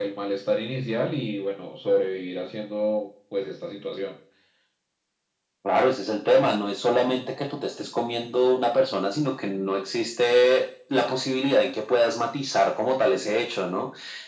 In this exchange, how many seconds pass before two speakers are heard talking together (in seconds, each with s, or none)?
none